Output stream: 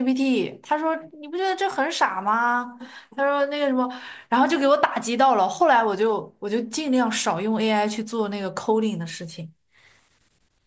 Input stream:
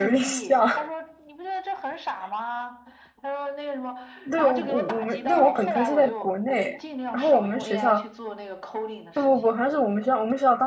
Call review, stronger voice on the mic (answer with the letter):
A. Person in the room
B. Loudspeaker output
A